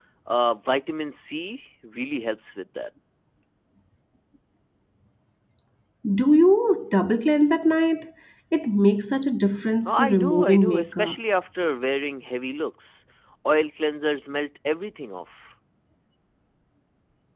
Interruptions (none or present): present